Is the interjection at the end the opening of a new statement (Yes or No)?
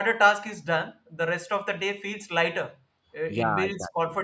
No